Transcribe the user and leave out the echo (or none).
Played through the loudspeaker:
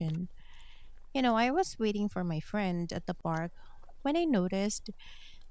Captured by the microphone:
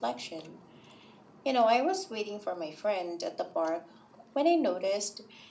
none